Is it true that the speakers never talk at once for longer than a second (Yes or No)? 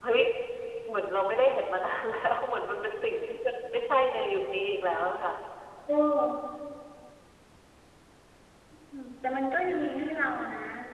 Yes